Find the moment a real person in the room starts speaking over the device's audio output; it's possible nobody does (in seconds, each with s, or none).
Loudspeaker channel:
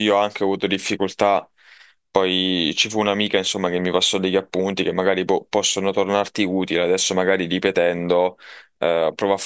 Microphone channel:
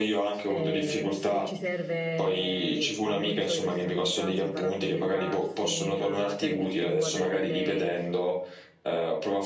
0.4 s